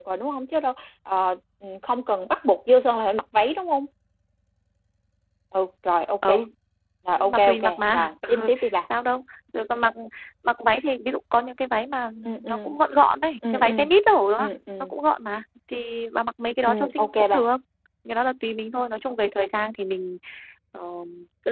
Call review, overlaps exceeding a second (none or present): present